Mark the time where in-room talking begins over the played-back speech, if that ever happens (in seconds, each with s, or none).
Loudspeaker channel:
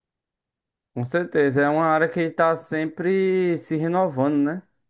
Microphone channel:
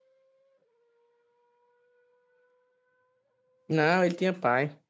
3.7 s